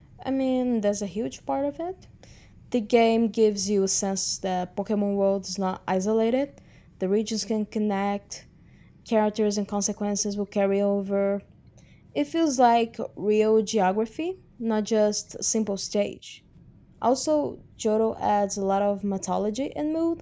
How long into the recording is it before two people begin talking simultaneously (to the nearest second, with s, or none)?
none